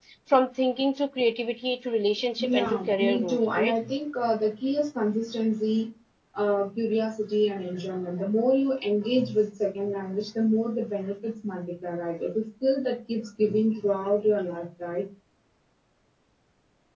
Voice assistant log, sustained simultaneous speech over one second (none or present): present